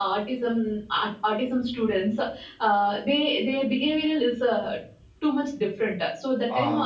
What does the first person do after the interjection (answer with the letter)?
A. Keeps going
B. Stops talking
A